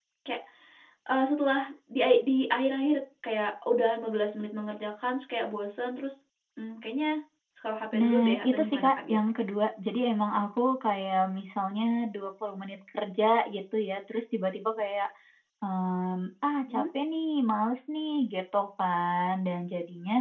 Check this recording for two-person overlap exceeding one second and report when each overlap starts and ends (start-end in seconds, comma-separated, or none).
7.9-9.4